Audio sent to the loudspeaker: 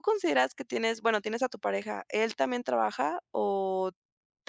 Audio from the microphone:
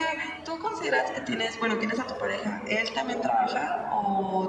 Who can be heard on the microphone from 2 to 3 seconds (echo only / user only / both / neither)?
echo only